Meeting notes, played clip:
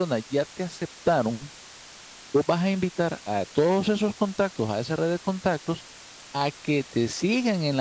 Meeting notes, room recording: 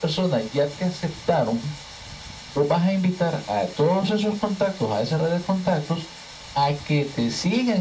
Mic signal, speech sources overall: echo only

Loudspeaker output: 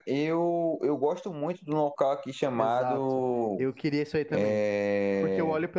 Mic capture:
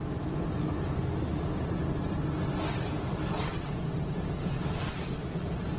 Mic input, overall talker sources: neither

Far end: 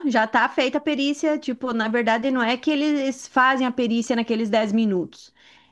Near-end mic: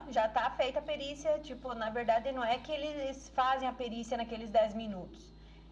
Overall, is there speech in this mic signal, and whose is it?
echo only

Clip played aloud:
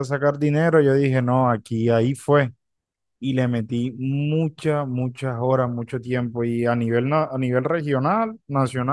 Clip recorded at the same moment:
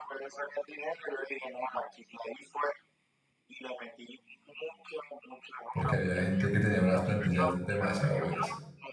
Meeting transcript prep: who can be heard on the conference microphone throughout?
both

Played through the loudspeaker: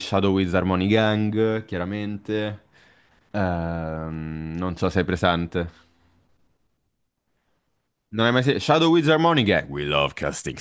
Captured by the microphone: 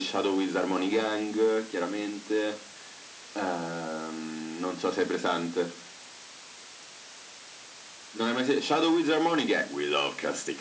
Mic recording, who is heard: echo only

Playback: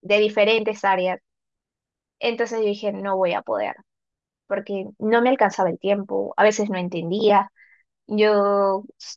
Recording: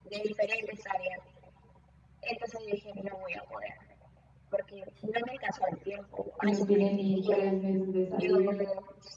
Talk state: both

